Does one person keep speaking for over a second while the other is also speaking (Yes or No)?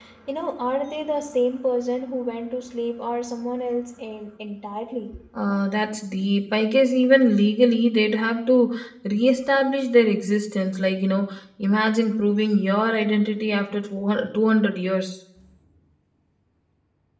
No